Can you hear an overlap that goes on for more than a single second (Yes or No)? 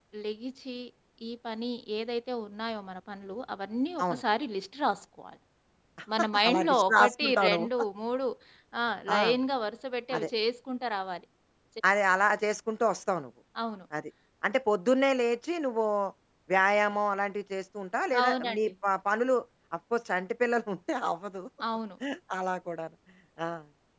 Yes